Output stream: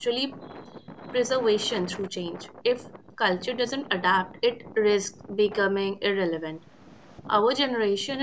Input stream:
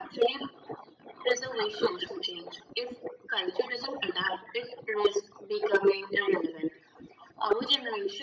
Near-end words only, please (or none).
none